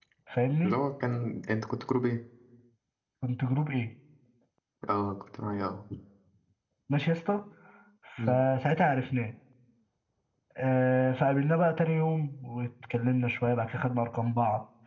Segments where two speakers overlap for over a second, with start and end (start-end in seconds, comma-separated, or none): none